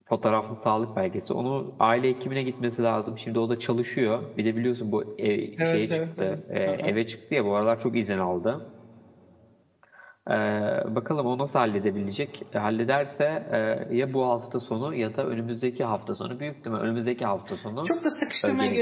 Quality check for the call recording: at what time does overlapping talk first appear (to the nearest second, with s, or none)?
6 s